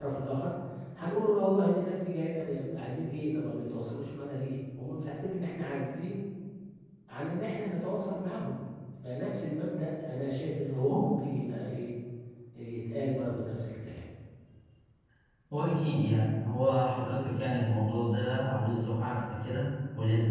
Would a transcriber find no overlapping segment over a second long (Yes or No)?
Yes